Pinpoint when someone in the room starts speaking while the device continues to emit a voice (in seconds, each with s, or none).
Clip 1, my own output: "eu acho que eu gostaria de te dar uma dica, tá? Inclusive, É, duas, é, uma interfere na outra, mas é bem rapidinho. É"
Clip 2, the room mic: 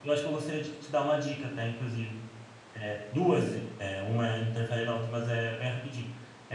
none